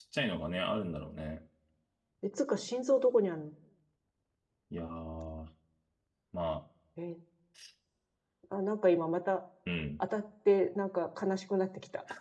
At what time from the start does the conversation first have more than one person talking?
none

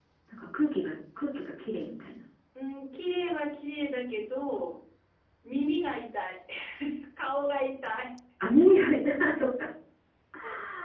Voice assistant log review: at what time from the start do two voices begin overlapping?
none

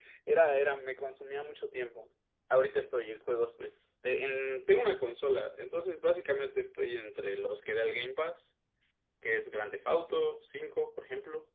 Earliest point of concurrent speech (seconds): none

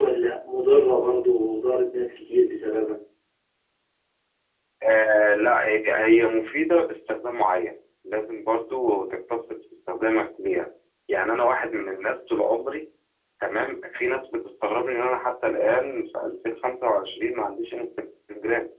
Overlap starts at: none

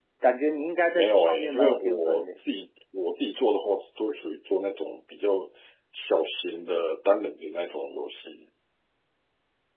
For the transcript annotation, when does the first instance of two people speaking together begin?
1 s

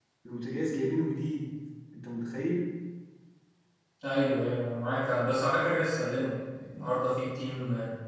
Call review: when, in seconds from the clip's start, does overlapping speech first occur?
none

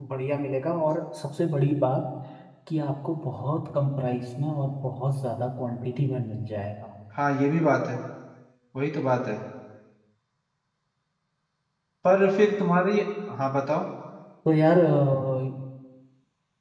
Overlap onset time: none

